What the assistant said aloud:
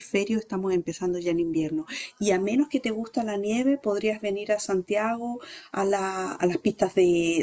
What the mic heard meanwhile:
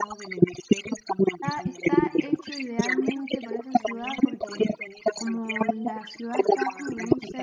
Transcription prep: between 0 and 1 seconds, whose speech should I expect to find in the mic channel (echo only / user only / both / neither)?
echo only